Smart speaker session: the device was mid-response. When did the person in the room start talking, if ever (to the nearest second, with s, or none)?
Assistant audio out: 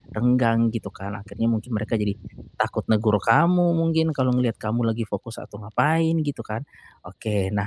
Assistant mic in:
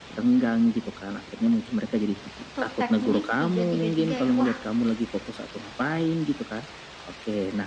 2 s